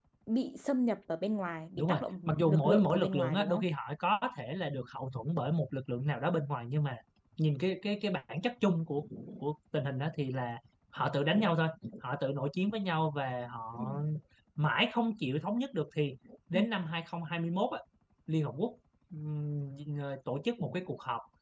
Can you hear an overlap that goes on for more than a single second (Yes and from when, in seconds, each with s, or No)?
Yes, from 1.8 s